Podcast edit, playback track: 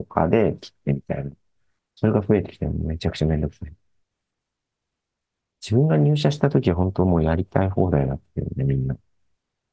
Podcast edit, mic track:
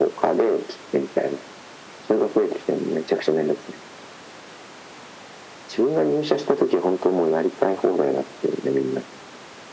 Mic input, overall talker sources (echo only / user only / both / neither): echo only